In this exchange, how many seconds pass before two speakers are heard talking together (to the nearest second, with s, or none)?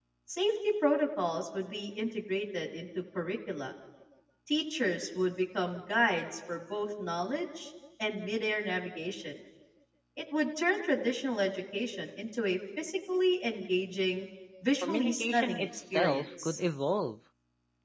15 s